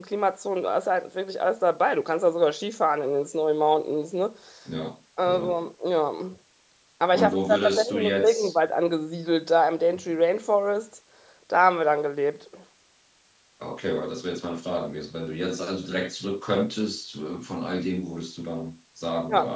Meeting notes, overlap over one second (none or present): present